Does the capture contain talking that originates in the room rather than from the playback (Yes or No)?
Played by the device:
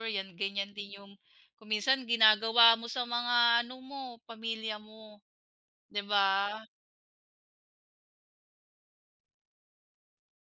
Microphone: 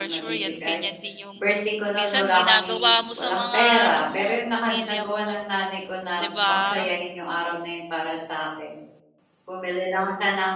Yes